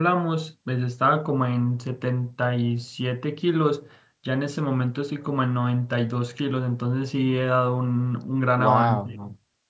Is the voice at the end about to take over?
Yes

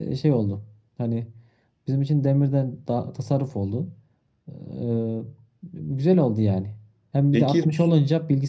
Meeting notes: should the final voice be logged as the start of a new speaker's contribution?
No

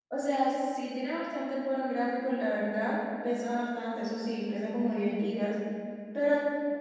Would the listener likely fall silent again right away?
Yes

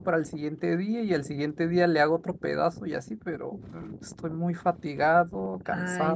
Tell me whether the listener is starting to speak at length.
Yes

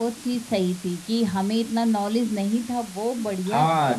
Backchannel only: No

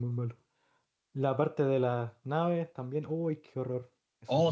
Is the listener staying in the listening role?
No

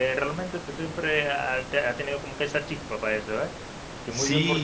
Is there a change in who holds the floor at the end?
Yes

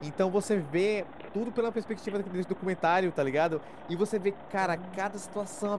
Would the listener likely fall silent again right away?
Yes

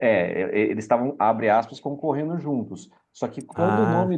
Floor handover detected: No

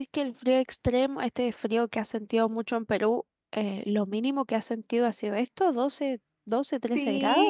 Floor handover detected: Yes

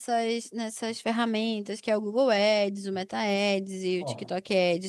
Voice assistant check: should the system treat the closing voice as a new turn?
No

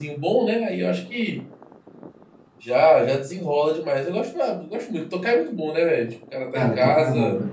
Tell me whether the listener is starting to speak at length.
Yes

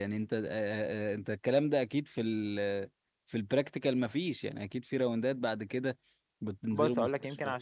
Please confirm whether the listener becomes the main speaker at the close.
Yes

